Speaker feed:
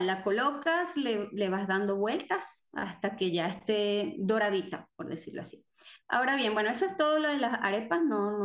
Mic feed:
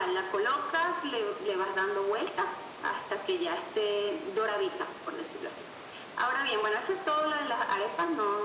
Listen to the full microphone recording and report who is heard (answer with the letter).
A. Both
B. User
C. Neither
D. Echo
D